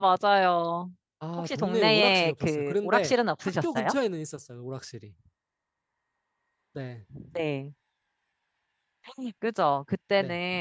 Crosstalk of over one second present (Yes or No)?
Yes